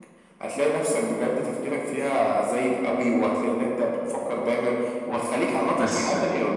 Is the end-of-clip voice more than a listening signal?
No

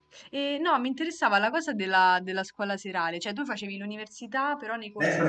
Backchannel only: No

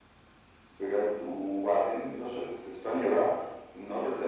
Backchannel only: Yes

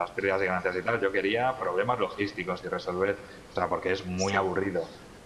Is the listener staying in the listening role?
Yes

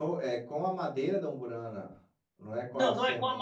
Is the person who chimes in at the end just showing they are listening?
No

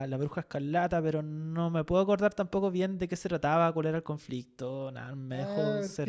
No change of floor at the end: No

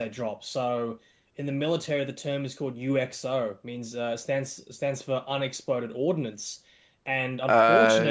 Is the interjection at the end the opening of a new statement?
No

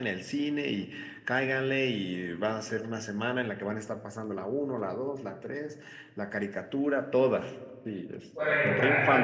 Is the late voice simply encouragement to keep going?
No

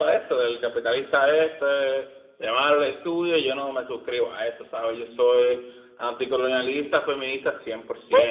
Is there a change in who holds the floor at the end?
Yes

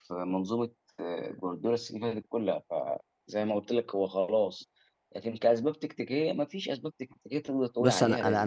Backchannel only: No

